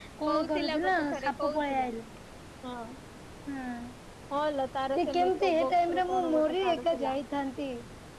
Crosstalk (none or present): present